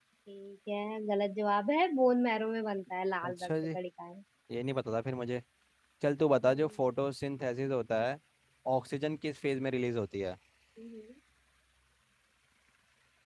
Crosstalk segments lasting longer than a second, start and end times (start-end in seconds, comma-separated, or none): none